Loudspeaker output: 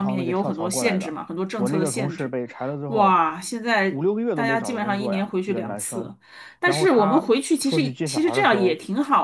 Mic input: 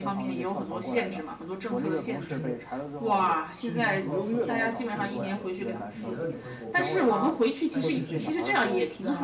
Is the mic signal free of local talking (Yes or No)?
No